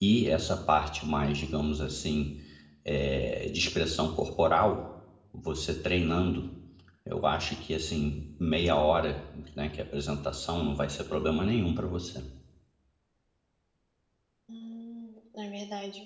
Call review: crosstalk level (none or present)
none